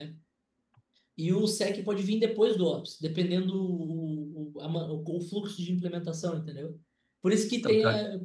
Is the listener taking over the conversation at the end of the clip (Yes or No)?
No